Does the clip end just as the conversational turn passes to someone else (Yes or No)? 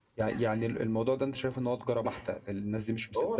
No